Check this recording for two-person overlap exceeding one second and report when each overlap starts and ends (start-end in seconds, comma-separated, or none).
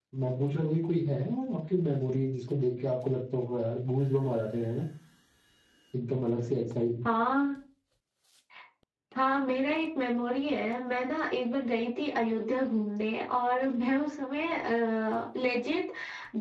none